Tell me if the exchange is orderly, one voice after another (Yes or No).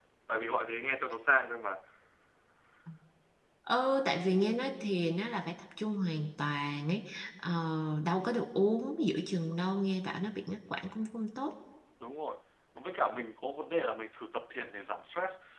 Yes